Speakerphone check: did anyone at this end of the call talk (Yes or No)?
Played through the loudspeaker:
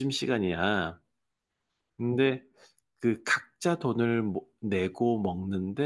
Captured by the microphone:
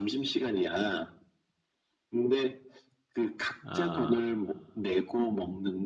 Yes